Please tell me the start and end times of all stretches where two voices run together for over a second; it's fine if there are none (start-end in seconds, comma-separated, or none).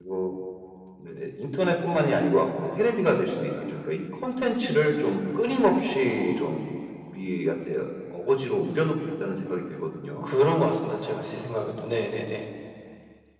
none